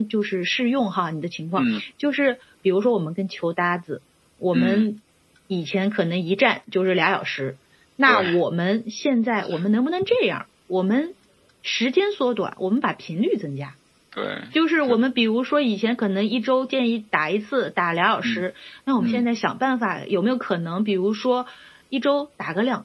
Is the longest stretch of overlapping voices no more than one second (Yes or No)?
Yes